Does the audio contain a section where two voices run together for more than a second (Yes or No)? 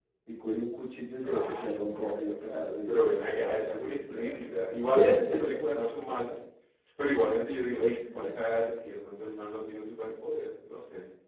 Yes